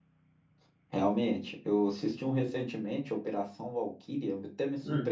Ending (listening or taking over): listening